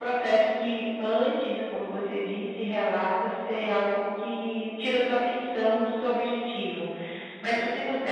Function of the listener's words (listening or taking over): listening